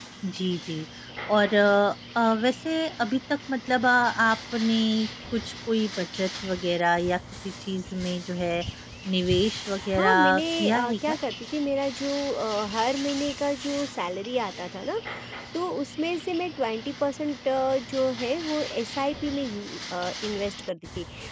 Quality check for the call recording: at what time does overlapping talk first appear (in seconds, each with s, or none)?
10.0 s